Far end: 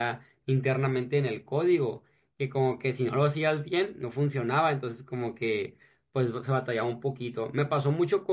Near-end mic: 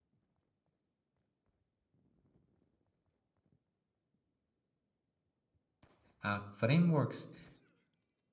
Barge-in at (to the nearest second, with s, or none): 6 s